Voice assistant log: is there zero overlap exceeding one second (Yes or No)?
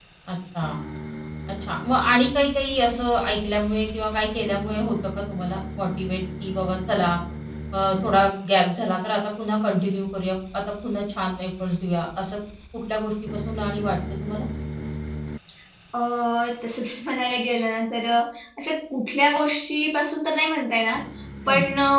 Yes